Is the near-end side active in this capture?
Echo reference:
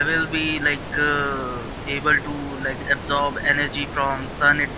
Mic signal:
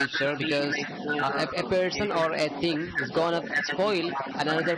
Yes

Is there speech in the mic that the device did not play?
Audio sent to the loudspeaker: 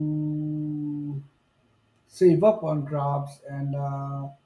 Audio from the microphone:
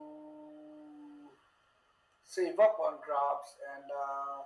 No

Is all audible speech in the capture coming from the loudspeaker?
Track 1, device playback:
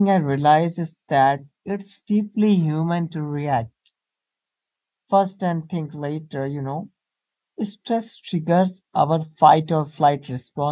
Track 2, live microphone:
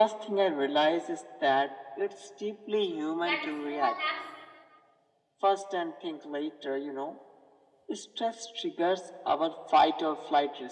No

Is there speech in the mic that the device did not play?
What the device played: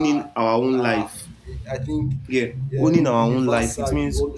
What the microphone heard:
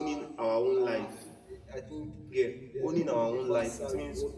No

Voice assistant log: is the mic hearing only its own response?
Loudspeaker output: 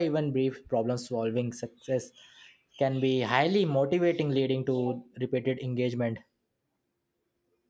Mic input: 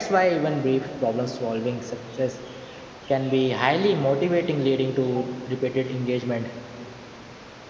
Yes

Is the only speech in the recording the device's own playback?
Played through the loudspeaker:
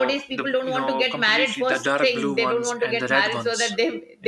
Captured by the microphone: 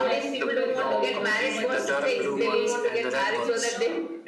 No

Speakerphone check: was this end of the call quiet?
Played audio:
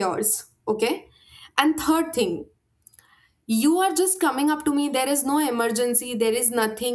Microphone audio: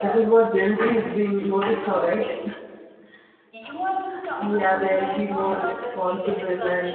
No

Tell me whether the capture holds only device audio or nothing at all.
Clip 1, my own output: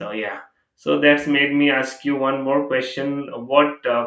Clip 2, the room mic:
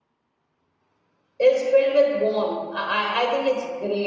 No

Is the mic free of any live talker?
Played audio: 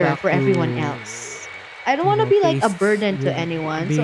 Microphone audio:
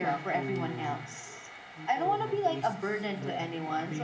No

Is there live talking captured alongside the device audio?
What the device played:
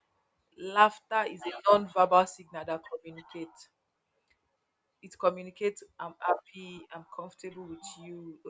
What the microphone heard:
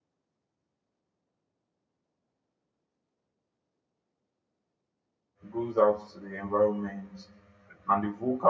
Yes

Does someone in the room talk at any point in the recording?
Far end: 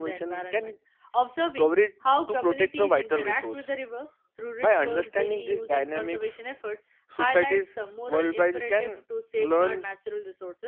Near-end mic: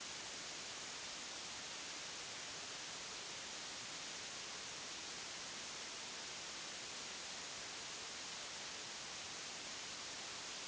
No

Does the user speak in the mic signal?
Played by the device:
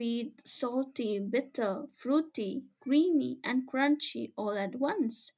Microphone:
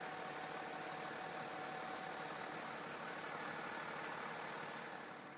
No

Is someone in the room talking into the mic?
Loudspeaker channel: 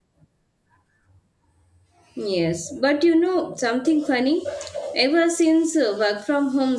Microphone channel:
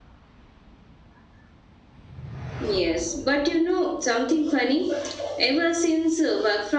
No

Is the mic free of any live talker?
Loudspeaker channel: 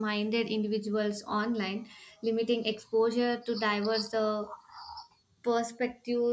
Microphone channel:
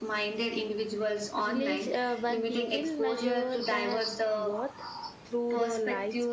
No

